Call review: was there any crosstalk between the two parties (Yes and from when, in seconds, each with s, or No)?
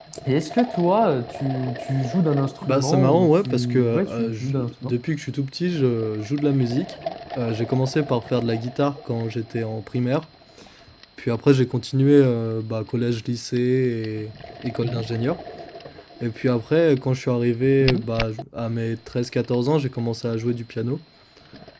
Yes, from 2.6 s